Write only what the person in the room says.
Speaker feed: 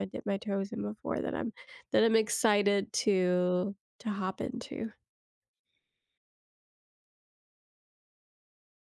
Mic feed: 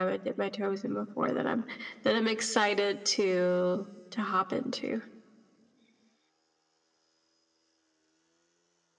none

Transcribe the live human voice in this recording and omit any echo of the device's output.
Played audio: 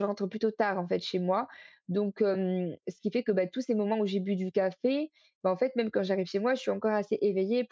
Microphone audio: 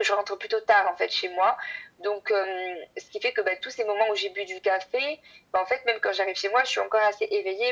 none

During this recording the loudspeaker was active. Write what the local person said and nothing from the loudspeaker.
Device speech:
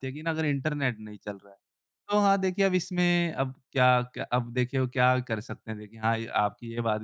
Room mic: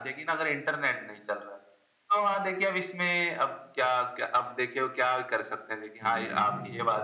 हाँ जी, हाँ जी।

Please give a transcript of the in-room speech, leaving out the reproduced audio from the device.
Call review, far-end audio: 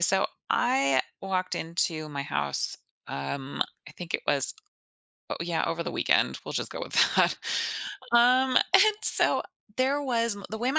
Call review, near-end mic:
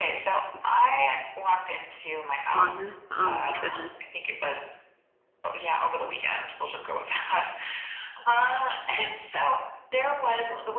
Fun. Oh my goodness.

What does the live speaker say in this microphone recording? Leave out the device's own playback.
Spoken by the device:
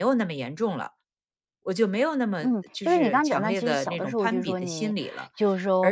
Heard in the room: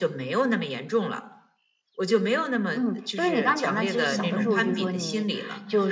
嗯，

